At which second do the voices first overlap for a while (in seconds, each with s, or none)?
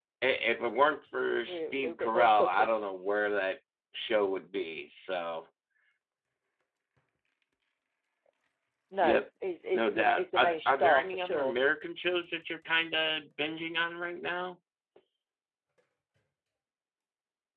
1.5 s